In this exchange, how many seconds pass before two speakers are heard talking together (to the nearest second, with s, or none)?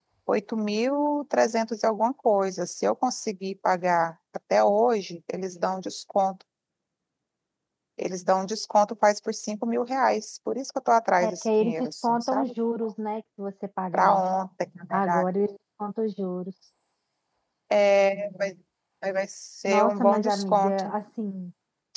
11 s